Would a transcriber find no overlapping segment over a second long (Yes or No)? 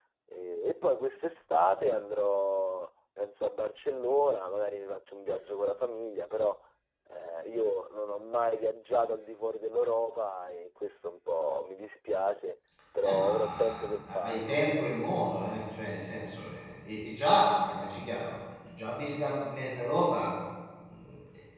No